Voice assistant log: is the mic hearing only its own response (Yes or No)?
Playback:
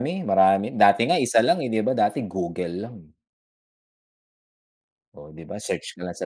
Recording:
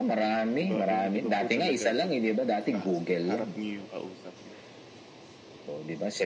No